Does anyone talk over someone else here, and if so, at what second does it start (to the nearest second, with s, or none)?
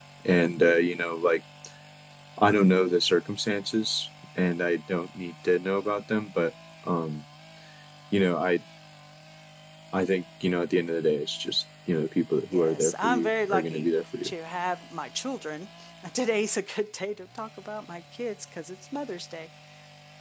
13 s